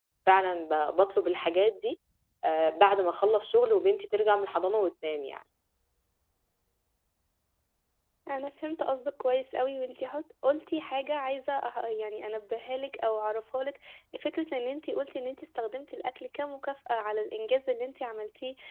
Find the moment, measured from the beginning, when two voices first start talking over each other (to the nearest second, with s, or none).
none